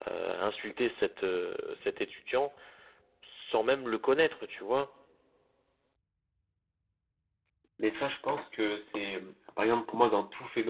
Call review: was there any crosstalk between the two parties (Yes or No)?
No